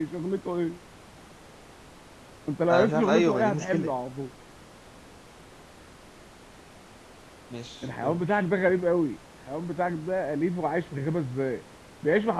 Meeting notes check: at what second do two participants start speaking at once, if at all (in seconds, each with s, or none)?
2.7 s